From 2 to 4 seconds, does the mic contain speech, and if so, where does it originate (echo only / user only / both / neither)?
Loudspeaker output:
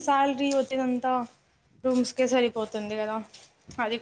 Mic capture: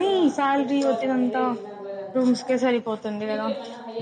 both